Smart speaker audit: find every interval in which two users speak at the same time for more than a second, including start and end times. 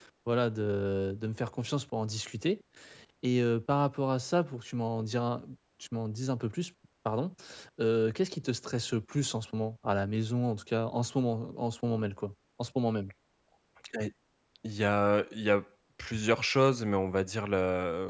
none

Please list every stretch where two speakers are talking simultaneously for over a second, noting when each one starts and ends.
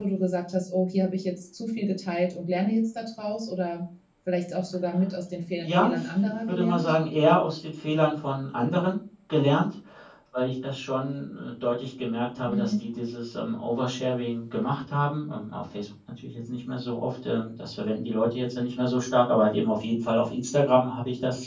5.6-6.9

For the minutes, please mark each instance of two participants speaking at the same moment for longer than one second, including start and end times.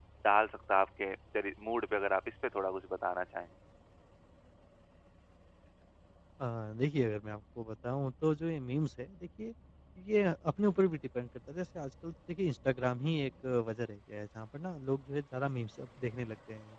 none

